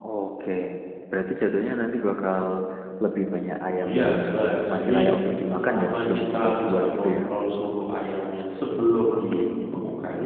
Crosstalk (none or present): present